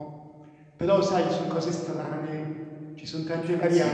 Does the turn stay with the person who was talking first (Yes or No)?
No